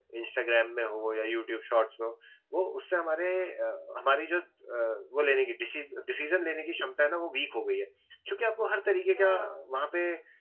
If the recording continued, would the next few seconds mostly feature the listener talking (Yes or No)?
No